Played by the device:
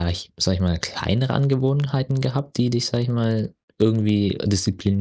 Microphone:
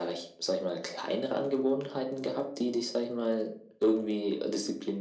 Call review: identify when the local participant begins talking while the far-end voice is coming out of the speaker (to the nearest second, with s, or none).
none